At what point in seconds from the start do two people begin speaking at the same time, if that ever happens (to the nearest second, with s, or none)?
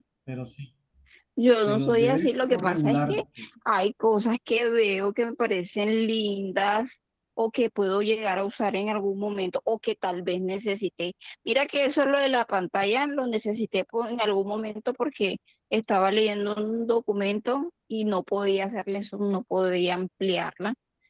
2 s